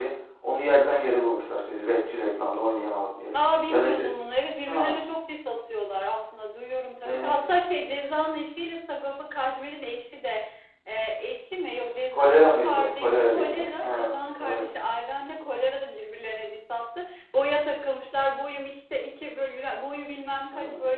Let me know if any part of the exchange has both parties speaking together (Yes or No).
Yes